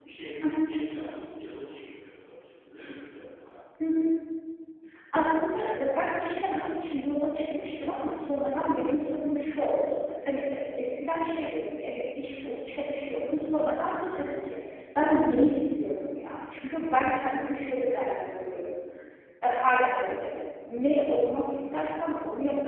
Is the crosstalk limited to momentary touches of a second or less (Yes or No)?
Yes